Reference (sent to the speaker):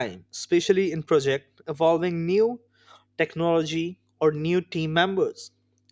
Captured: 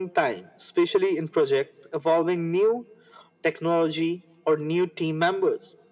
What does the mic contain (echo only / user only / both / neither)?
echo only